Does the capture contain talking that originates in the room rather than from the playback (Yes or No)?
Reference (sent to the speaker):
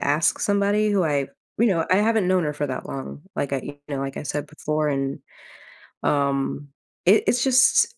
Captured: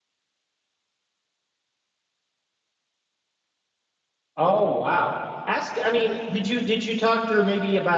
Yes